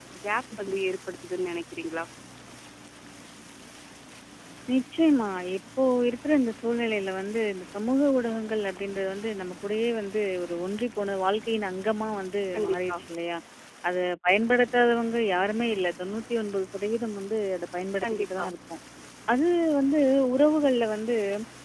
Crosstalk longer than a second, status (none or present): none